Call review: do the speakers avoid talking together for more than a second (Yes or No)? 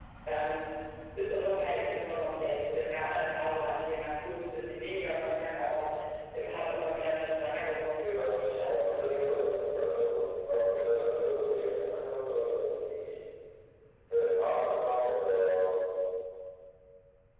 No